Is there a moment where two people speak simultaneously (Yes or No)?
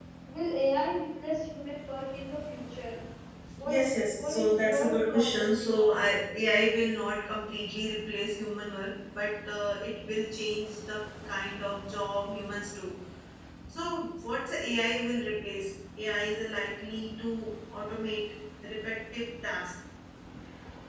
Yes